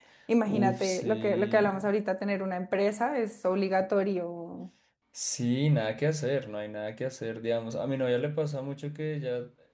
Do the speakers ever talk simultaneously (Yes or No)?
Yes